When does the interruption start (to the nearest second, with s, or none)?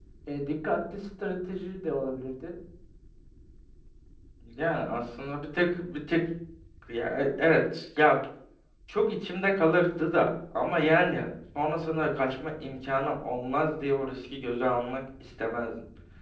none